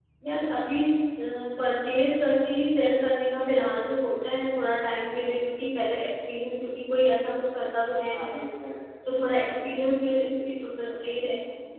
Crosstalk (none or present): present